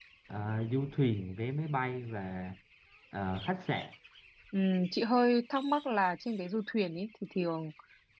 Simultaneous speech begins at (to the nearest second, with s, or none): none